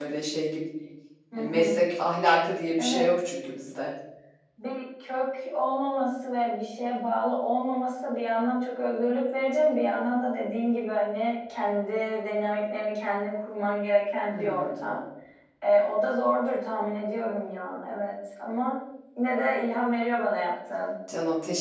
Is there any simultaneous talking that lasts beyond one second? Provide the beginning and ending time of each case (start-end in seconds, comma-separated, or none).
none